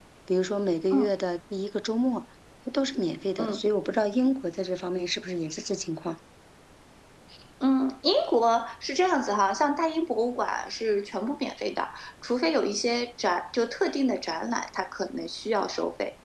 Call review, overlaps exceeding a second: none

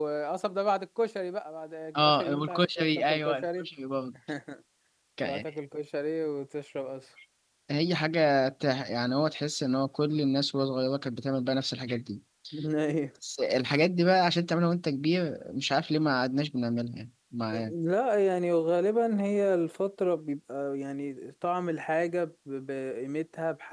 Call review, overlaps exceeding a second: present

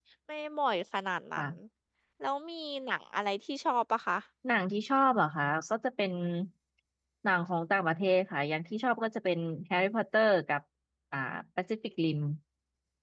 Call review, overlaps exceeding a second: none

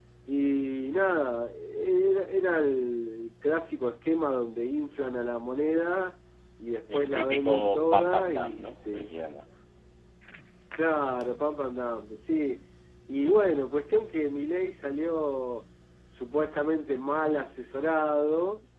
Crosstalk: present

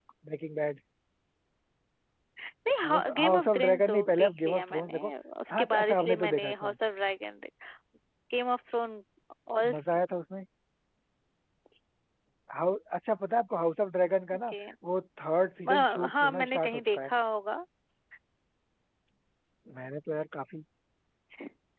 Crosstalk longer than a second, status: present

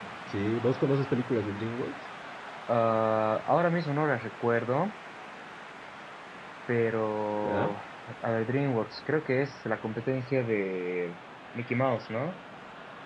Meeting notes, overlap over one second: none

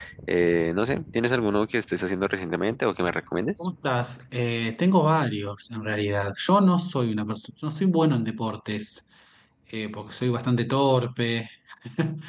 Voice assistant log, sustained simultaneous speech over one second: none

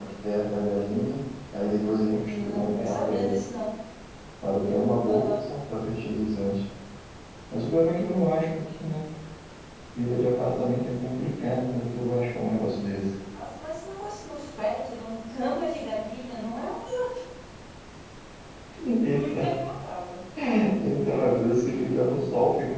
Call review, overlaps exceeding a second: present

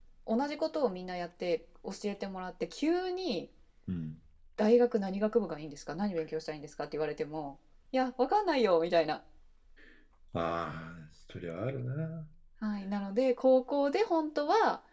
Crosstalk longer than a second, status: none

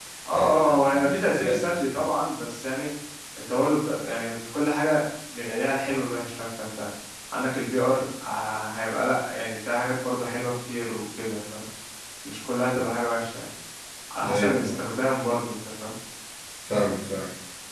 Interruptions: present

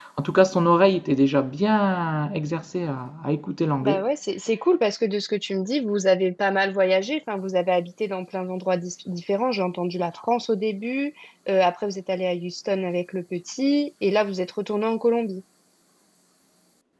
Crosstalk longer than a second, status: none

